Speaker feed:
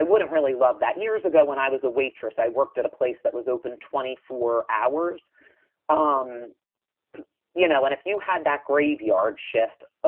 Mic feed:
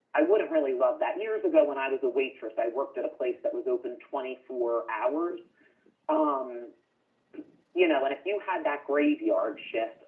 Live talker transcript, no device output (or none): none